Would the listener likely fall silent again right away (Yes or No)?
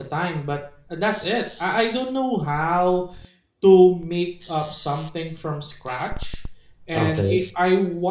Yes